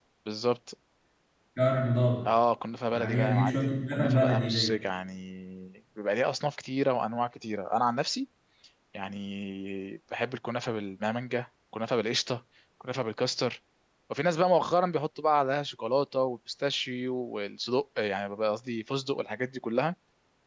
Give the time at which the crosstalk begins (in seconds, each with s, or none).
2.9 s